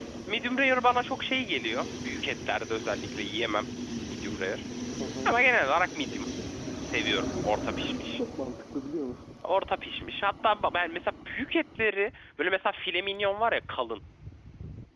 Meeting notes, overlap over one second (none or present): none